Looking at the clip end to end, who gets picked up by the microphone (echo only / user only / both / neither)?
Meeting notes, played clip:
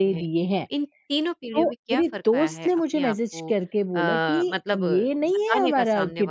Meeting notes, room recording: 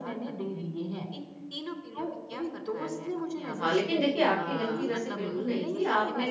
both